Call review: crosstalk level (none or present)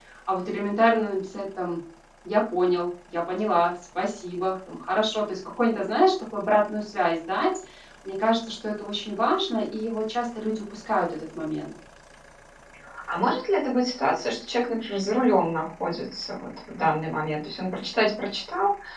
none